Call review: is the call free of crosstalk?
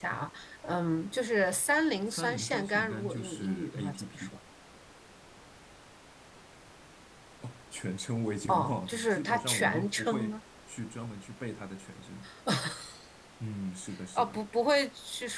No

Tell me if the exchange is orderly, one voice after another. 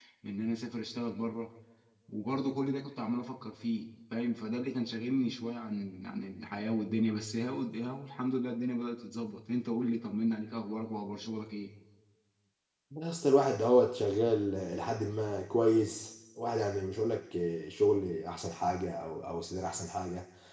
Yes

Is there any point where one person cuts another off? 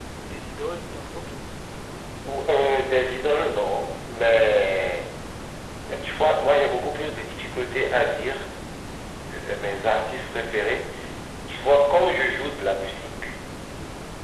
No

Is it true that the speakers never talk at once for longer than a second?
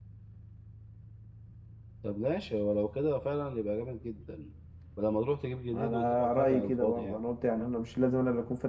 No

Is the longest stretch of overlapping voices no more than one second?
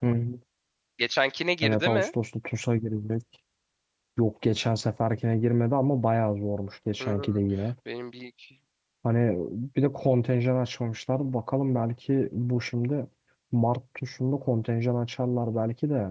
Yes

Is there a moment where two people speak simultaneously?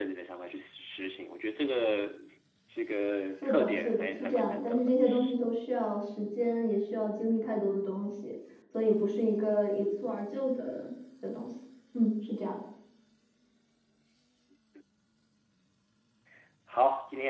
Yes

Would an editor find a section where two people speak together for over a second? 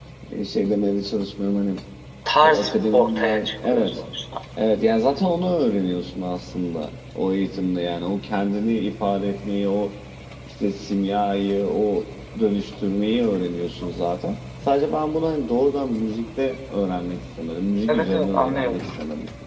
Yes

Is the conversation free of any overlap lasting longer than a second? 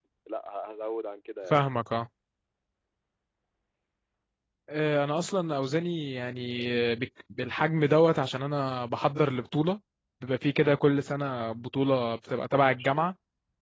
Yes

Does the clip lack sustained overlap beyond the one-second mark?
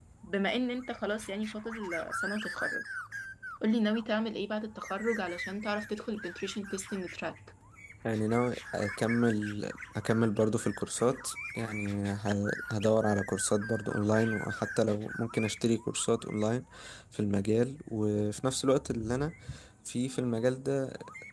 Yes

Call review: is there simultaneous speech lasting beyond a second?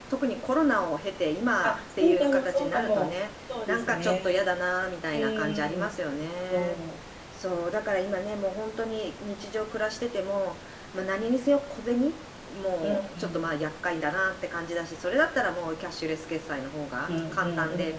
Yes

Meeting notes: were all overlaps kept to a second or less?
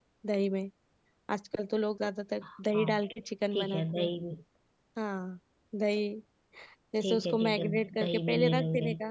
No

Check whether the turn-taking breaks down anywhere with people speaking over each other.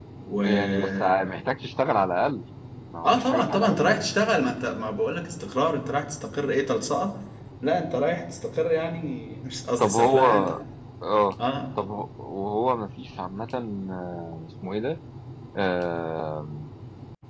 Yes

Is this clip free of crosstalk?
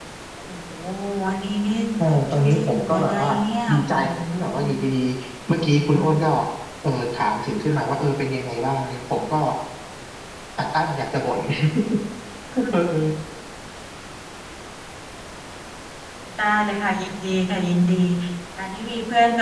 No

